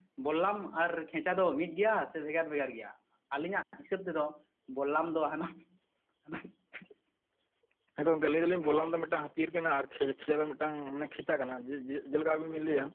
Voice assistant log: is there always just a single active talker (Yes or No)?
Yes